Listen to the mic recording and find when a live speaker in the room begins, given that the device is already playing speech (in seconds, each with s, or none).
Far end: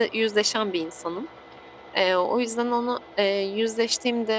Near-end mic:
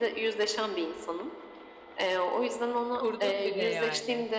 2.9 s